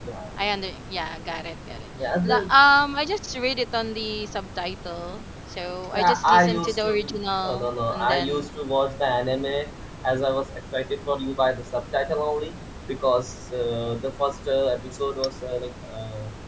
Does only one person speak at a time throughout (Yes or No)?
No